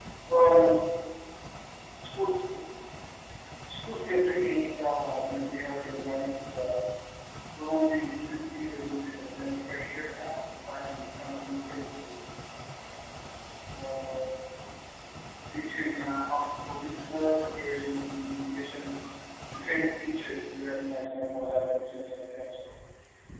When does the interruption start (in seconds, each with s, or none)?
none